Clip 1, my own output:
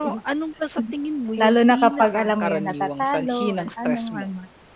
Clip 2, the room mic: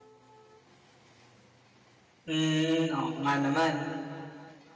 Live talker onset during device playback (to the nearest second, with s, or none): 2 s